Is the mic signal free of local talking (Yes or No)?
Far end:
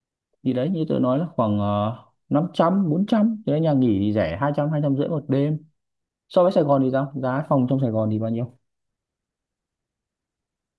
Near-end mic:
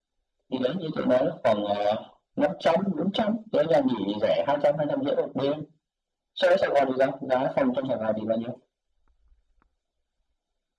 Yes